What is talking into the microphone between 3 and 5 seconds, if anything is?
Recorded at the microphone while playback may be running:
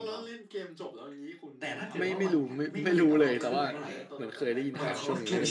both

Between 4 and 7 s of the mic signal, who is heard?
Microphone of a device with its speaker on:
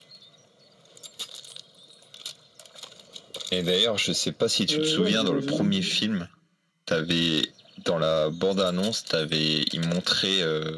both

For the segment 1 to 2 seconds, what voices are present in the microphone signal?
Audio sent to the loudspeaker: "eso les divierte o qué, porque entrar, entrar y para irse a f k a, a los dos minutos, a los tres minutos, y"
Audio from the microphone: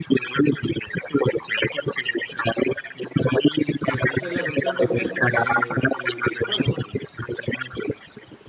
echo only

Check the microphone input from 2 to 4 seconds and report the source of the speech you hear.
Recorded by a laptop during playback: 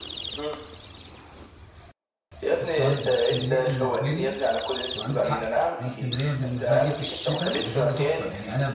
both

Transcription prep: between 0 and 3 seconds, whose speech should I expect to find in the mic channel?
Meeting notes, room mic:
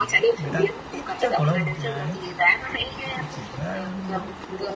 both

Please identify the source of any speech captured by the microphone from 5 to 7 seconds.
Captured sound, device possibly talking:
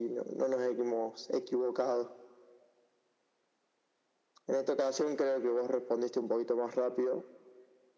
echo only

